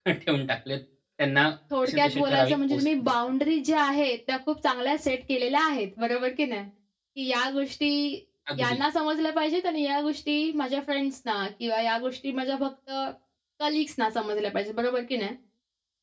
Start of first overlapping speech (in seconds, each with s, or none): 1.9 s